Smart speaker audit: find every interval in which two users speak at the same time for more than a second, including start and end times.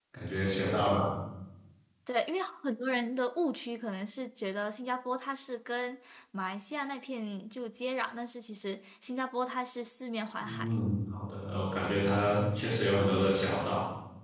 none

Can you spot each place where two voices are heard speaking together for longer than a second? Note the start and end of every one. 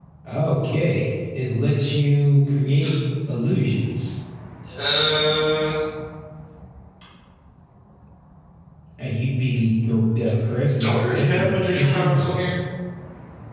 10.8-12.3

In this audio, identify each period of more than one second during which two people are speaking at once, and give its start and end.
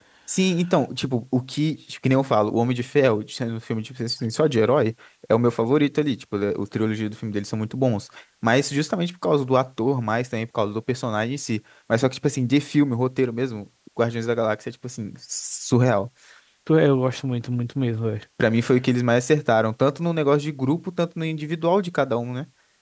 none

